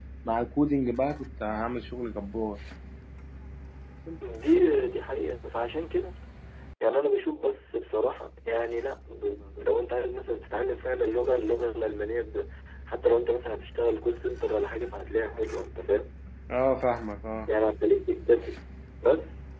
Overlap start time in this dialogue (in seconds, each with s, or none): none